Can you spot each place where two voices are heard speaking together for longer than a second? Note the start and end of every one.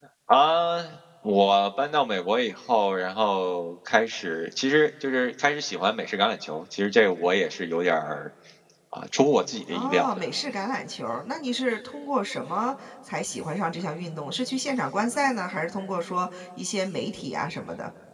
none

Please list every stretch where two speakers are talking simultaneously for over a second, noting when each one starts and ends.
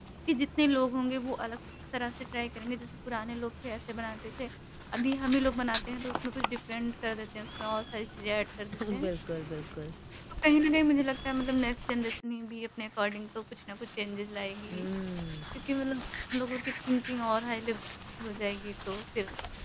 none

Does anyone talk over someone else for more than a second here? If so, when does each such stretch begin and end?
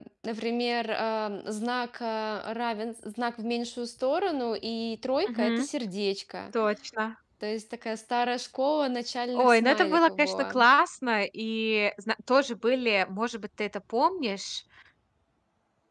9.4-10.6

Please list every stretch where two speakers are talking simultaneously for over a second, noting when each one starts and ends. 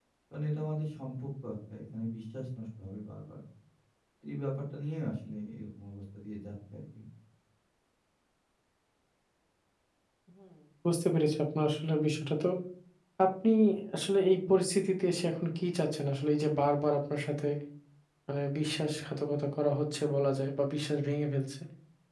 none

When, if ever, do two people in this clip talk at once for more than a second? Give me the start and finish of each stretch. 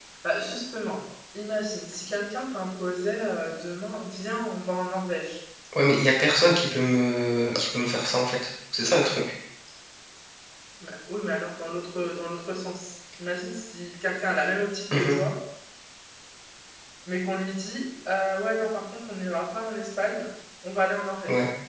none

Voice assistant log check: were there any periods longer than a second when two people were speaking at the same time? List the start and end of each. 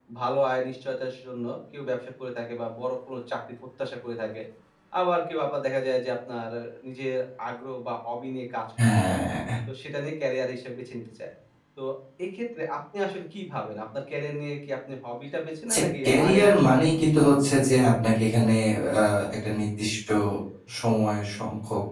15.7-17.7

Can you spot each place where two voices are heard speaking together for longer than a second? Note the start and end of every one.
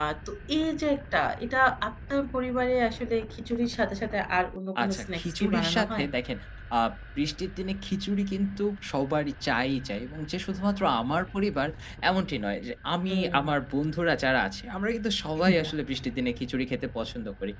4.8-6.1

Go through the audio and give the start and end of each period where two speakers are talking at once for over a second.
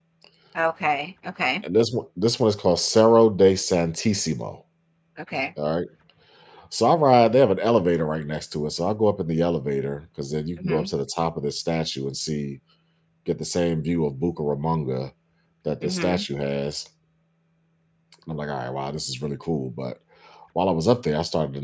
none

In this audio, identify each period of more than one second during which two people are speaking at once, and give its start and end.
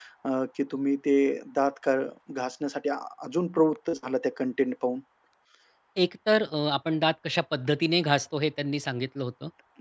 none

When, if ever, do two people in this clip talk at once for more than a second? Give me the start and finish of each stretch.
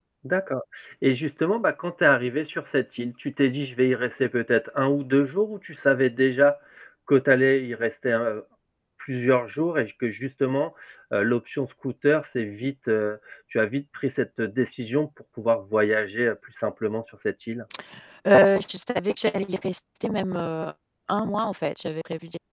none

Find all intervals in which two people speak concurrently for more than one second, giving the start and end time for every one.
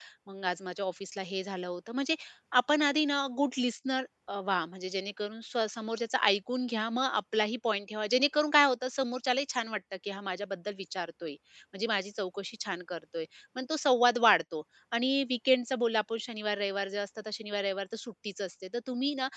none

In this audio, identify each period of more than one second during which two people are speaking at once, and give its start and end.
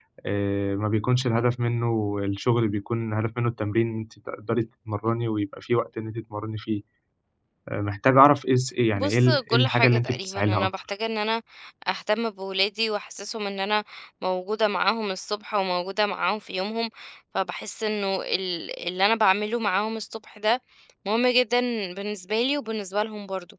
9.0-10.7

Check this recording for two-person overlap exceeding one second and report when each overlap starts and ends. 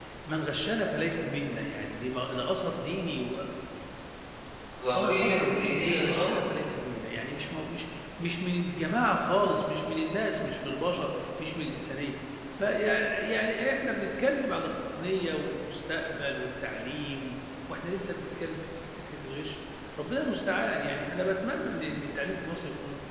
4.9-6.4

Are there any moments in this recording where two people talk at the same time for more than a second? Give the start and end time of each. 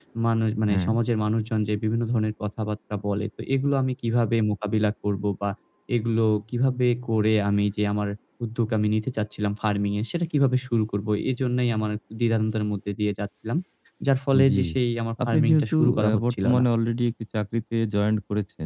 15.3-16.6

